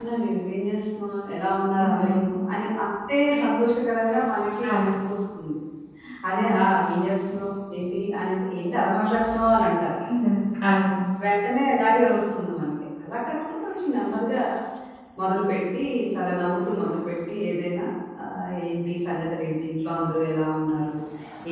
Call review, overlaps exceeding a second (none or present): none